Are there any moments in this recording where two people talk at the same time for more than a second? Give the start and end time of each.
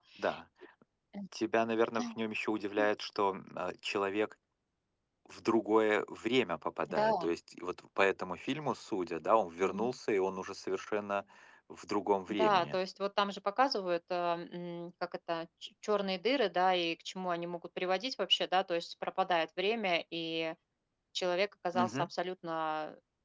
none

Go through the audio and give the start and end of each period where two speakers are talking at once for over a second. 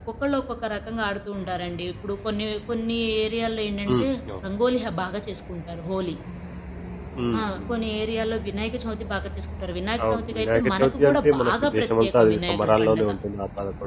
10.1-13.1

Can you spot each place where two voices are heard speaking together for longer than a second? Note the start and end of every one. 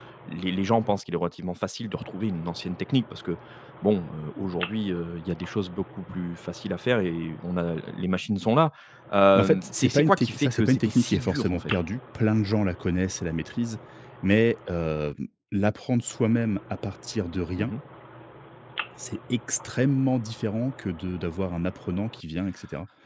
9.4-11.7

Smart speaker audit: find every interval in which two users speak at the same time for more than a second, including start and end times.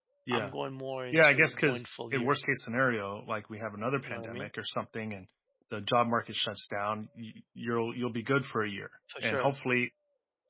1.1-2.3

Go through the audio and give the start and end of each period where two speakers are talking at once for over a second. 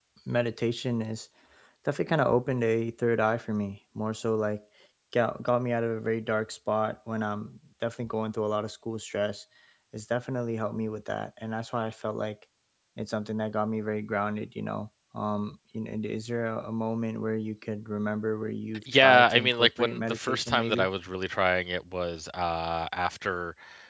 18.9-20.9

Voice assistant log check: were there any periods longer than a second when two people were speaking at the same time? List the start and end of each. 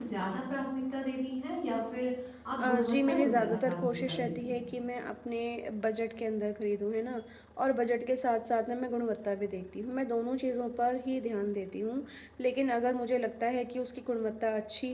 2.6-4.6

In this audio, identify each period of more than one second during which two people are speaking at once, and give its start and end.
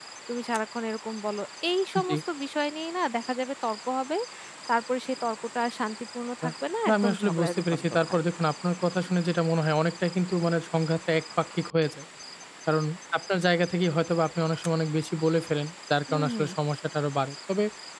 6.9-8.2

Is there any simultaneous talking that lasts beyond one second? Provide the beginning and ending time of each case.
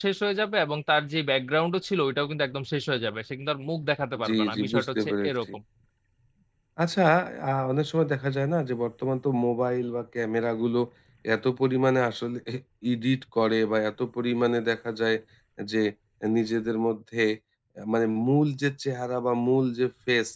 4.2-5.5

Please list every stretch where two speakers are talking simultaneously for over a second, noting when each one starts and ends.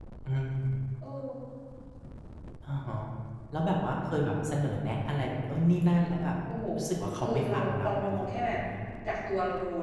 7.2-8.6

